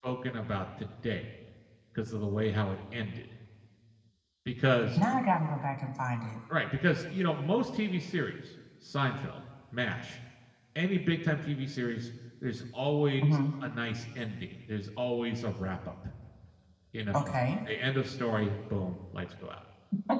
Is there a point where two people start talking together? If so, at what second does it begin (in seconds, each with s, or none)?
none